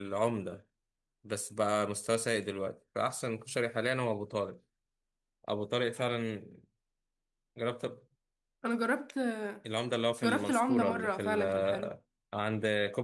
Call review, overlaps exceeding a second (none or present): present